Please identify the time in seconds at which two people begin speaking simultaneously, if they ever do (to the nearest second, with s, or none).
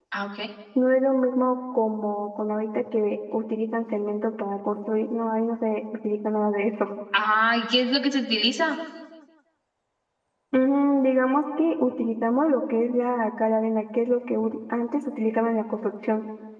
none